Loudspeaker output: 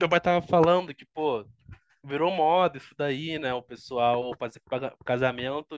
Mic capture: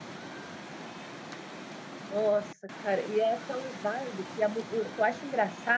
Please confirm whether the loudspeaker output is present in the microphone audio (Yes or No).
No